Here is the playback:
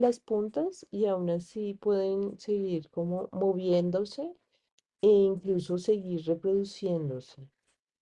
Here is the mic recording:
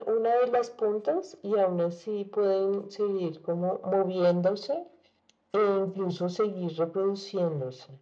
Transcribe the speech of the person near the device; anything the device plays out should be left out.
none

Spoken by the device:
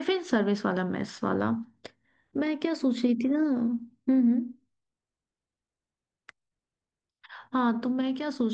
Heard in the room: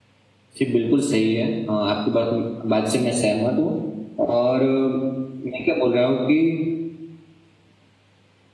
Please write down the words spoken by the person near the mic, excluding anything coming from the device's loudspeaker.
जी बिल्कुल सही है अ, आपकी बात बात से मैं सहमत हूँ और अ, मैं क्या बोल रहा हूँ कि

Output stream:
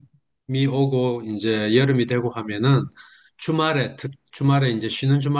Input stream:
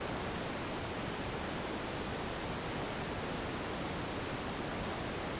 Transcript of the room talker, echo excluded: none

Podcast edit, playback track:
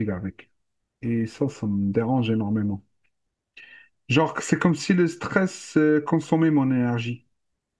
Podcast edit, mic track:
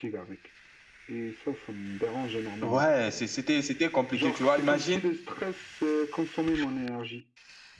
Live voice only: Ouais, c'est- c'était, c'était compliqué, tu vois. Imagine,

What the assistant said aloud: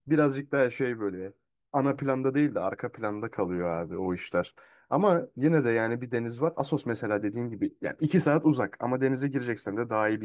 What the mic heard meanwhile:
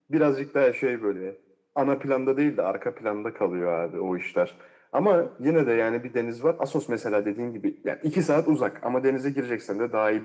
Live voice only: none

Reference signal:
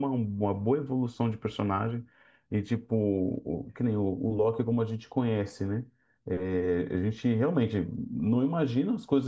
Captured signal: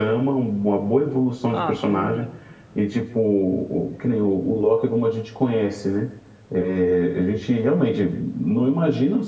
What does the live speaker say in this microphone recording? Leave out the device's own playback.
Ah, não lembro.

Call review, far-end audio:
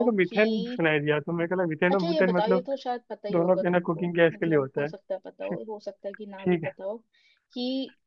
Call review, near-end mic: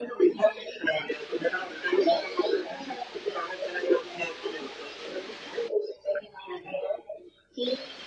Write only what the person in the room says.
none

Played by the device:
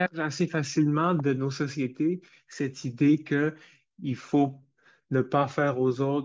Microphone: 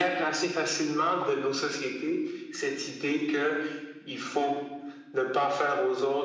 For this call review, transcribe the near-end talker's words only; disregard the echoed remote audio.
none

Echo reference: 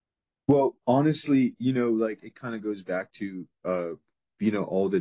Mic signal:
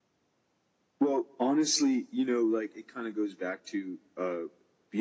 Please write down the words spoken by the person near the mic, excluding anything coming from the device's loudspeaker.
none

